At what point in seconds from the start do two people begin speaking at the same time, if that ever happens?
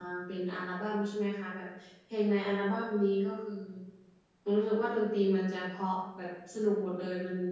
none

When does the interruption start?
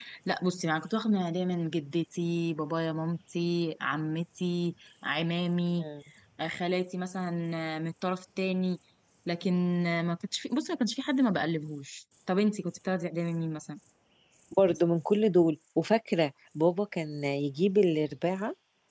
none

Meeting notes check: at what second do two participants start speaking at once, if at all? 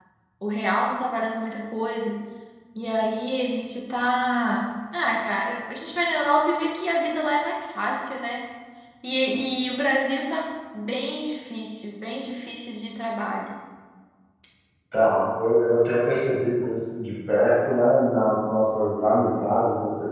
none

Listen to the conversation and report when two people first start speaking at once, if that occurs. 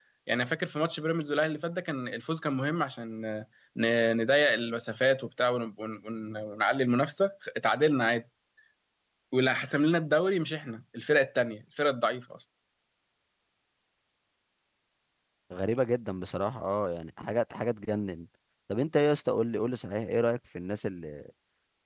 none

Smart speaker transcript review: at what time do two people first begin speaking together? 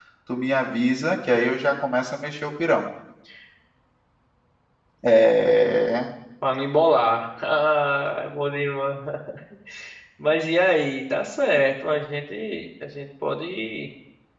none

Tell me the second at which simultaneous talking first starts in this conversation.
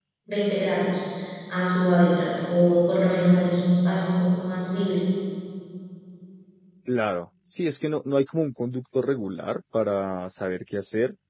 none

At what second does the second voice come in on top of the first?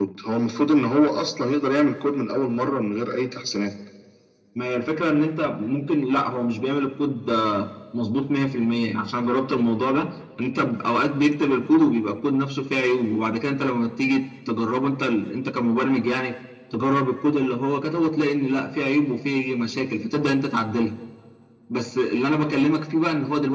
none

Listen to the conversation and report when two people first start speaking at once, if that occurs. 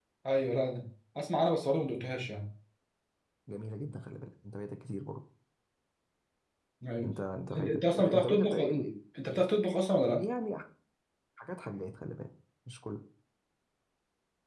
7.6 s

